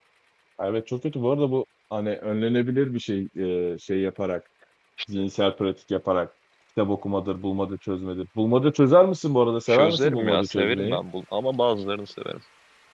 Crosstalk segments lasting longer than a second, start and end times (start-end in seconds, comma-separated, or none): 9.7-11.0